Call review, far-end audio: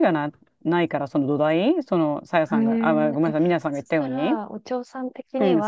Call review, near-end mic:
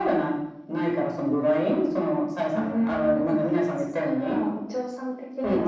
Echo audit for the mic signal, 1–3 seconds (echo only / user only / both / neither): echo only